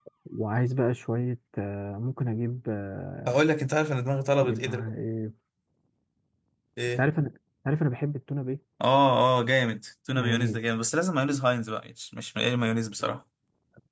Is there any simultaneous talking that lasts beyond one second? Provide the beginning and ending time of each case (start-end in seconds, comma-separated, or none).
none